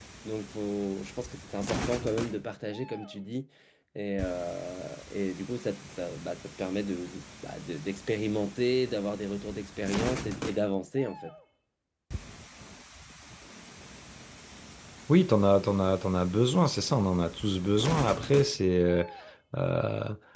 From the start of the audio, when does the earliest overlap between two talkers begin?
none

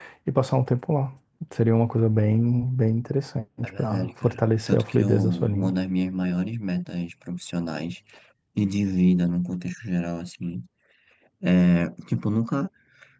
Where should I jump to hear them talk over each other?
3.6 s

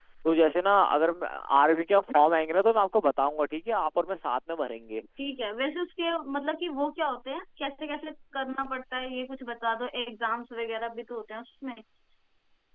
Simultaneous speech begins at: none

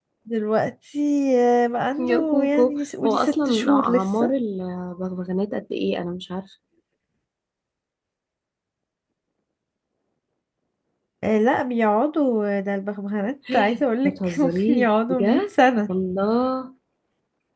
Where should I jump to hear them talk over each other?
2.0 s

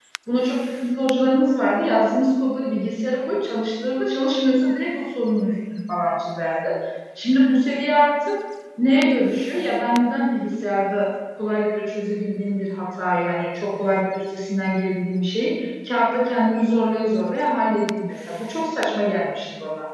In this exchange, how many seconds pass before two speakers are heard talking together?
none

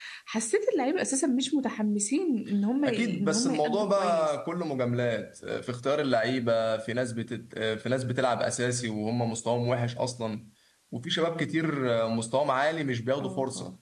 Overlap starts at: 2.8 s

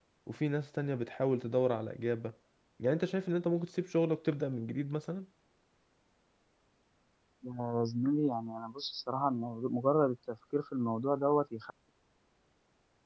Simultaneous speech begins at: none

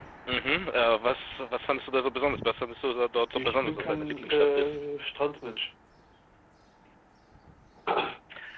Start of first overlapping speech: 3.4 s

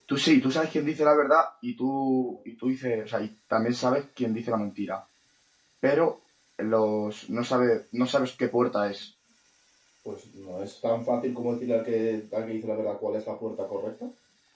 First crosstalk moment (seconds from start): none

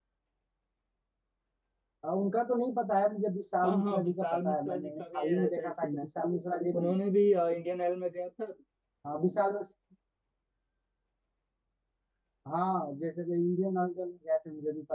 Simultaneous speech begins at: 3.6 s

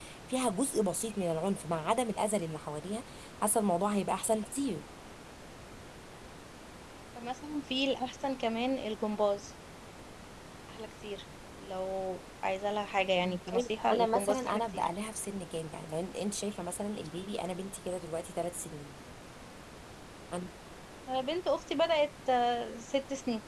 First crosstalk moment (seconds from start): 13.2 s

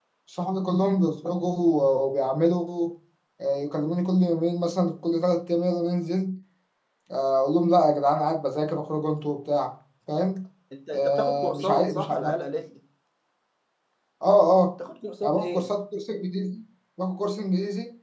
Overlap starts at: 10.9 s

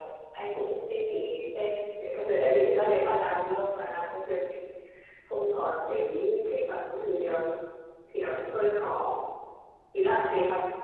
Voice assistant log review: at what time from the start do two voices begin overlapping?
none

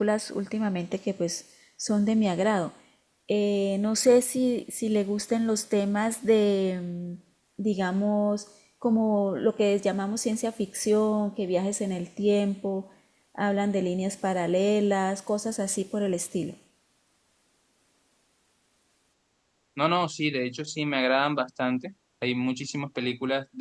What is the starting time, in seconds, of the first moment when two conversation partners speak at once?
none

